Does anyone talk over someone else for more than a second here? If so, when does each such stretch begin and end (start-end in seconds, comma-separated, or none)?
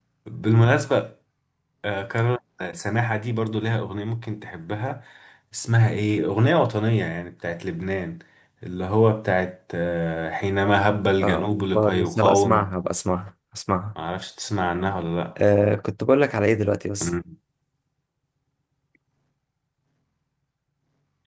11.2-12.7